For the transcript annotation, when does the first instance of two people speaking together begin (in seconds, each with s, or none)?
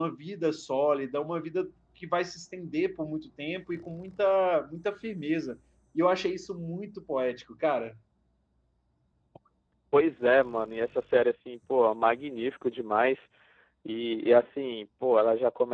none